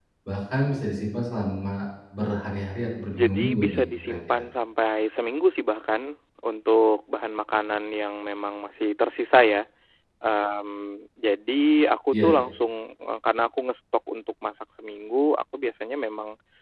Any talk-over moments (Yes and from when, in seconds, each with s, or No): Yes, from 3.1 s